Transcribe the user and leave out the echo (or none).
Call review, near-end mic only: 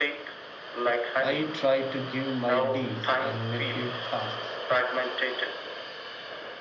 I try to give my niece and nephew tasks,